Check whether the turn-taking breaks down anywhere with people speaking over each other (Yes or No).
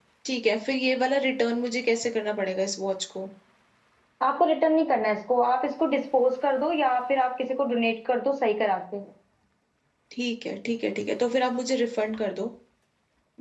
No